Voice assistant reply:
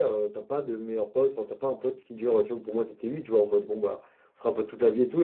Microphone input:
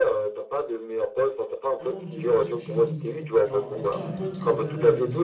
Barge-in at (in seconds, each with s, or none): 1.8 s